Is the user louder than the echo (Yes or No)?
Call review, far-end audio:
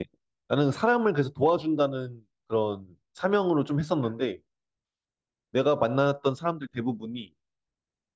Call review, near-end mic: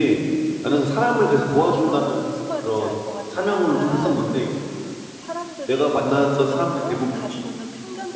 No